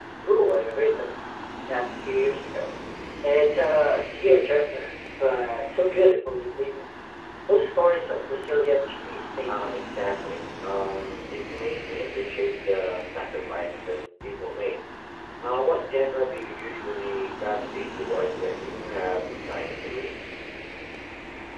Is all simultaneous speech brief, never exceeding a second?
Yes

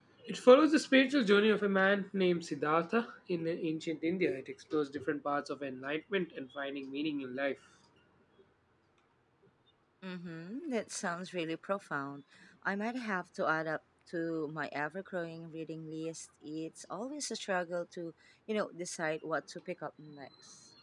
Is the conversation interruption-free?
Yes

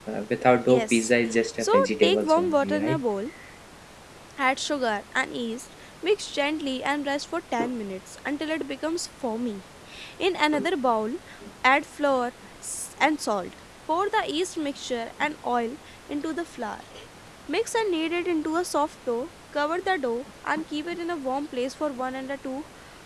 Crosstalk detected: Yes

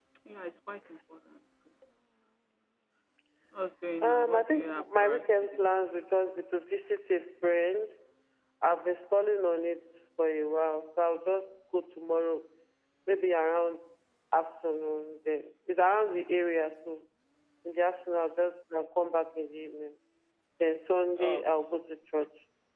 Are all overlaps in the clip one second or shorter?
No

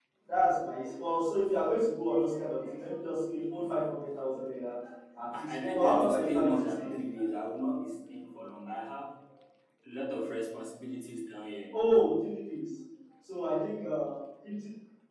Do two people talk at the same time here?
Yes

